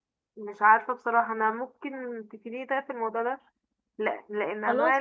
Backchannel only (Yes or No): Yes